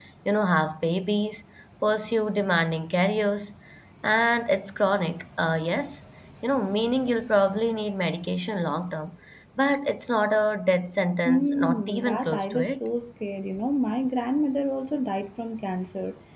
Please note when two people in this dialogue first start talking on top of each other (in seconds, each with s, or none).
11.2 s